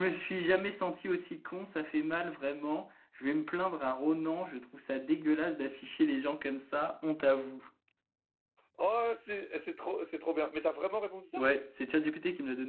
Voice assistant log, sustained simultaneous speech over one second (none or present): none